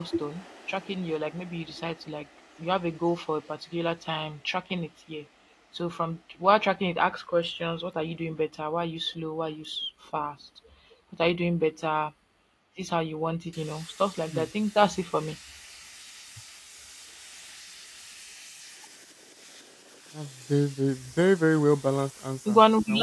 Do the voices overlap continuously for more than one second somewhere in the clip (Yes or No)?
No